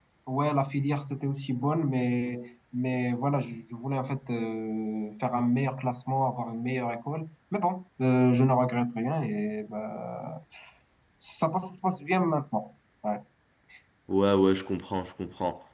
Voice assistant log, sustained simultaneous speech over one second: none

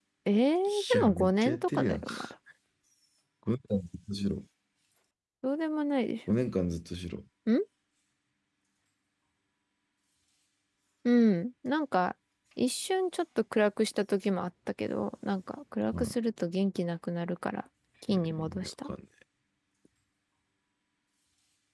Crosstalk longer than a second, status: present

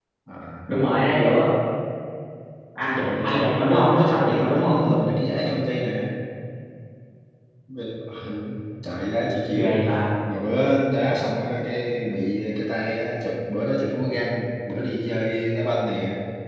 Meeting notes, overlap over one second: present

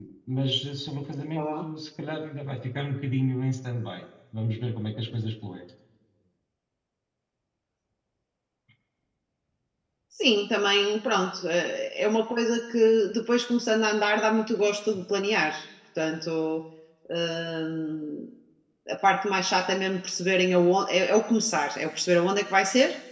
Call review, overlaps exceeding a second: none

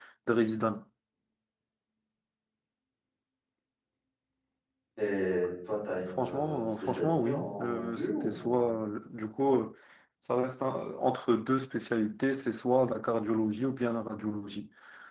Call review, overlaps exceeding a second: present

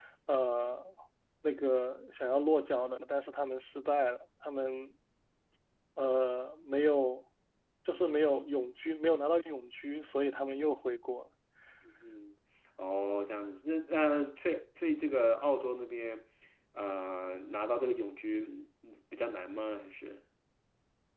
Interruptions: none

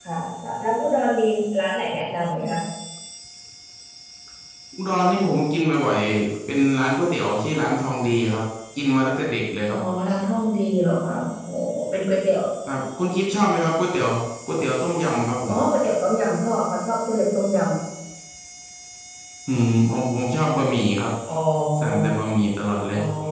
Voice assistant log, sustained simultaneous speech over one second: none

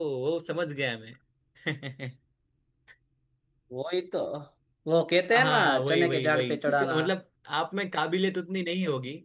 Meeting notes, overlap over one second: present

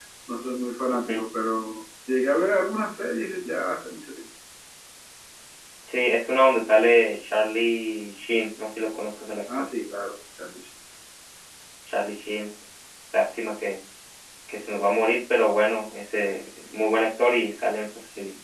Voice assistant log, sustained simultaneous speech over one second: none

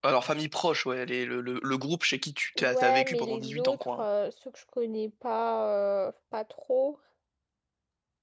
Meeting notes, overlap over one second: present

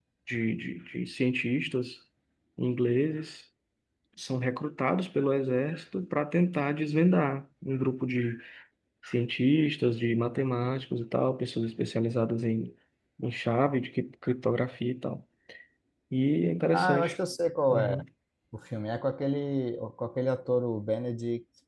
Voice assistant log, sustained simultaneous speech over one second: none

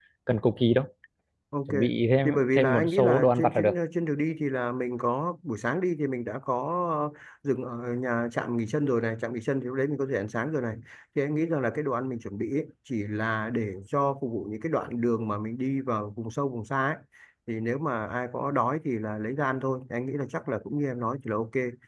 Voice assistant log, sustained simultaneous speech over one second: present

